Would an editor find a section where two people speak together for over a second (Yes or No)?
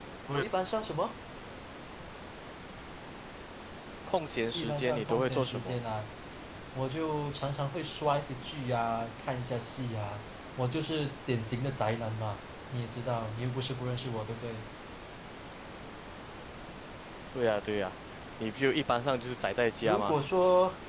Yes